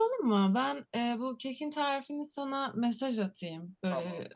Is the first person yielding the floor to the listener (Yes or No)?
No